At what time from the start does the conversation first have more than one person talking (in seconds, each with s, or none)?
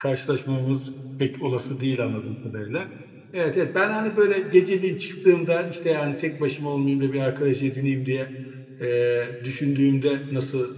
none